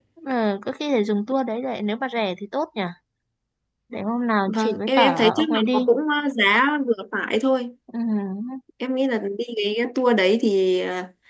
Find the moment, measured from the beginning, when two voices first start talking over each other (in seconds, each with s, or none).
4.5 s